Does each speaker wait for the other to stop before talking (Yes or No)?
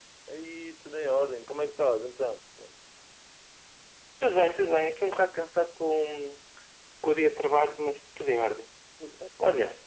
Yes